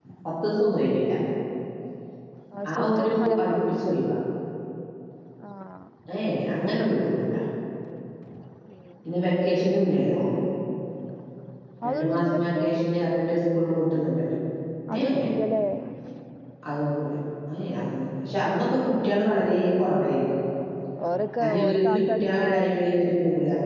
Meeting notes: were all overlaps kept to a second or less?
No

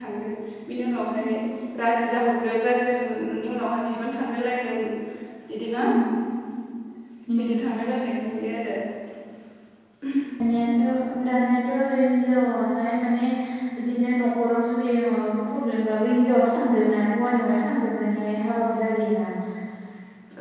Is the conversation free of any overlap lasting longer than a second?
Yes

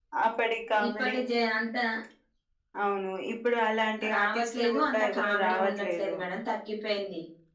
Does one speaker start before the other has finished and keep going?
Yes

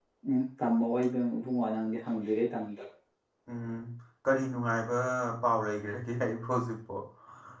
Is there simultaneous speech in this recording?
No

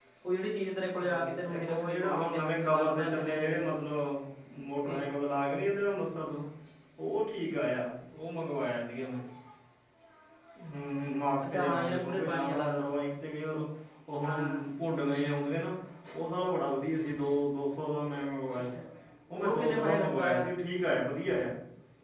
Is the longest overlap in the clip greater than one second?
Yes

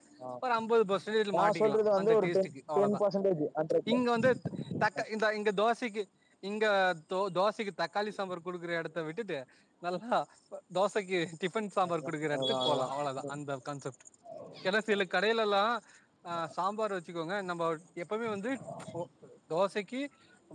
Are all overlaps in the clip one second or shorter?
No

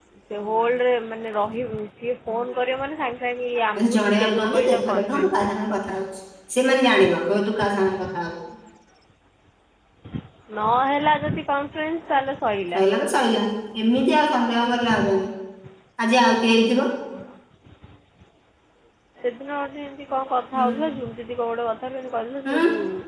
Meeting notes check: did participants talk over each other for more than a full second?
Yes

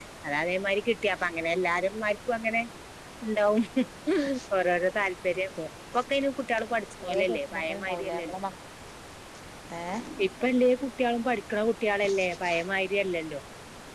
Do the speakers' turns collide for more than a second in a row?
Yes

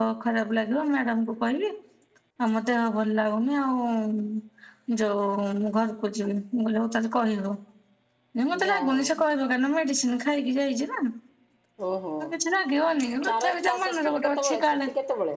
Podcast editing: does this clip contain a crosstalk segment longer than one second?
Yes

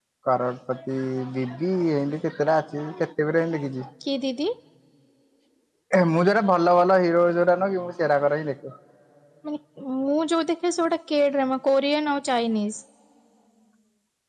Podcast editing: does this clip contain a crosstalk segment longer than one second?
No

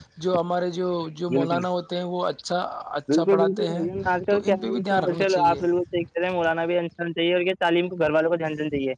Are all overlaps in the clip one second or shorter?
No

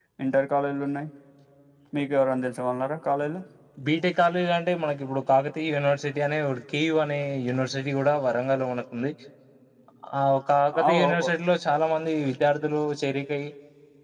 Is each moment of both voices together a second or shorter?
Yes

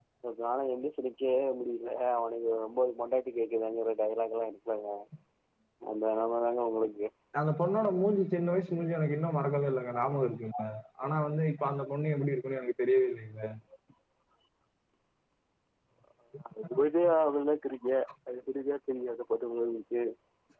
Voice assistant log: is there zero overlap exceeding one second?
Yes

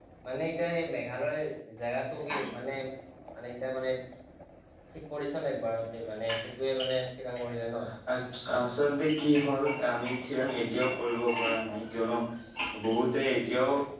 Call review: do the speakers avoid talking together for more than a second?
Yes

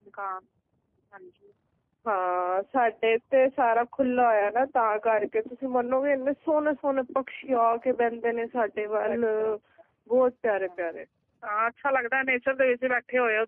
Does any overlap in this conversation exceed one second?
No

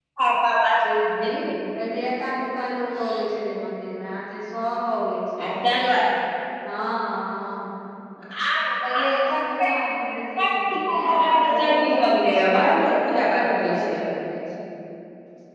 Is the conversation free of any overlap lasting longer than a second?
No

